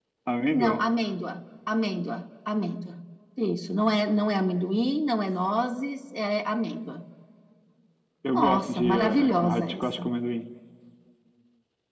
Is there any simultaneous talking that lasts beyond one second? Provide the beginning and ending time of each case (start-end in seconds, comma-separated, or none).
8.3-10.1